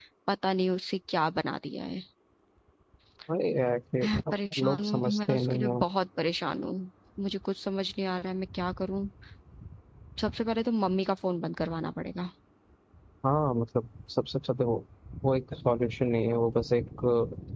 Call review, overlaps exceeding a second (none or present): present